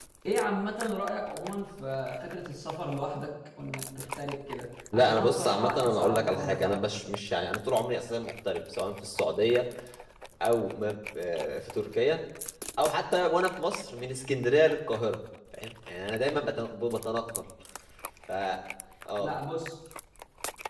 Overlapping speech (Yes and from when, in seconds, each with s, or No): Yes, from 4.9 s